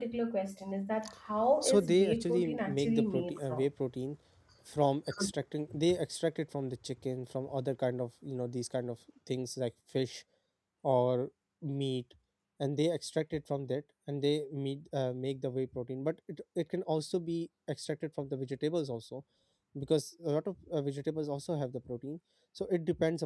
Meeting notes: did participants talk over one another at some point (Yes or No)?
Yes